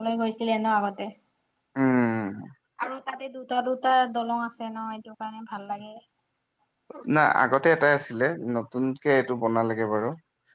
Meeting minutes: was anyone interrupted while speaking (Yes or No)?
No